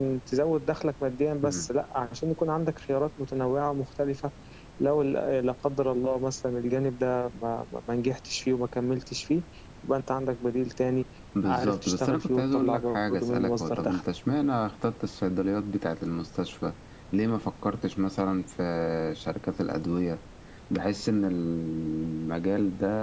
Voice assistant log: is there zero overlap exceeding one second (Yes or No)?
No